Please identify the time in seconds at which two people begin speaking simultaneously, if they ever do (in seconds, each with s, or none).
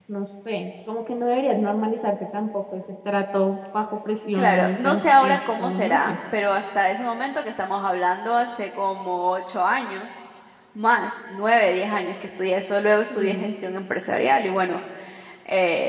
4.4 s